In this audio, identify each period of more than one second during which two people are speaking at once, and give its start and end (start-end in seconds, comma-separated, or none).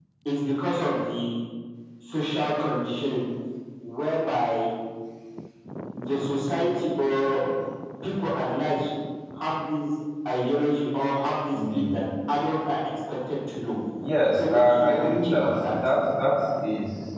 14.3-15.8